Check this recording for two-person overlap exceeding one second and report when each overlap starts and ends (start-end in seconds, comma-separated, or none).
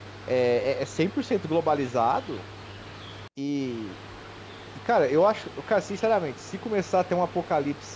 none